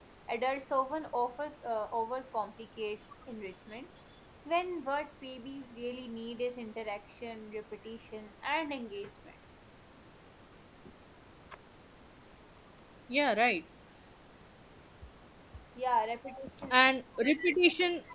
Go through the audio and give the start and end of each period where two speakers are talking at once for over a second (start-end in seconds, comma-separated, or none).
none